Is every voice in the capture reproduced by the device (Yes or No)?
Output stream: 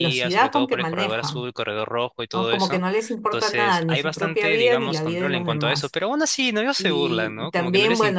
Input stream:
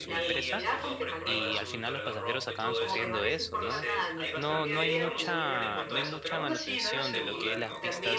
No